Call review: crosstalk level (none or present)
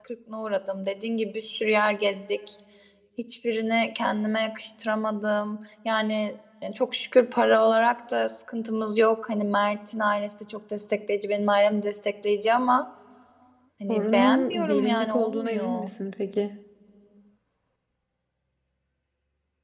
present